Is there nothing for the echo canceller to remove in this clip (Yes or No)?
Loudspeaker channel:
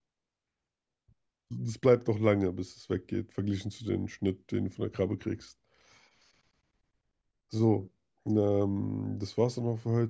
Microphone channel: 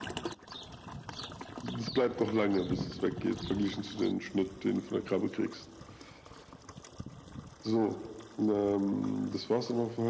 No